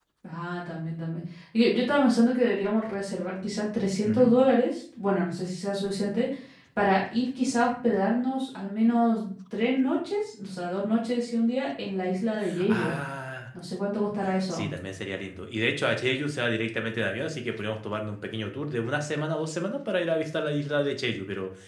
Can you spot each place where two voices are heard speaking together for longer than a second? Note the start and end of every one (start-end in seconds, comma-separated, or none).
none